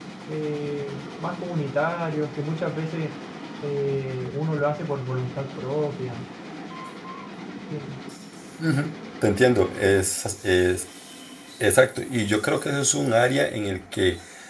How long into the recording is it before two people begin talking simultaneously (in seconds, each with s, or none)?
none